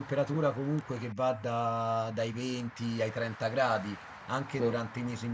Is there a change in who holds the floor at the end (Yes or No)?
No